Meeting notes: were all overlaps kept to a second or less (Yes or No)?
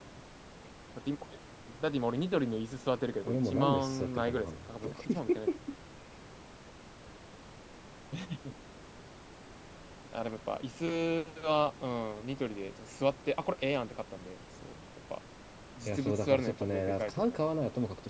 No